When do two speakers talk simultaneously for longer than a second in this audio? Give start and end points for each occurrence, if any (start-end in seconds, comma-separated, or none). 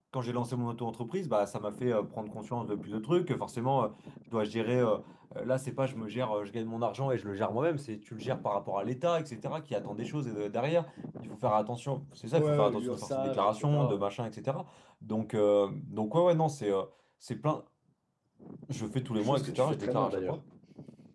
12.3-14.1, 19.1-20.4